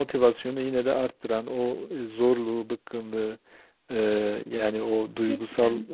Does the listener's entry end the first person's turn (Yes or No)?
No